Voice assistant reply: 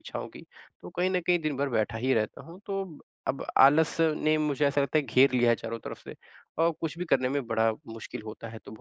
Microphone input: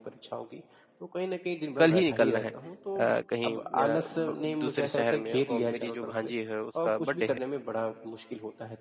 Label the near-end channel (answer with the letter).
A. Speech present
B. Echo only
A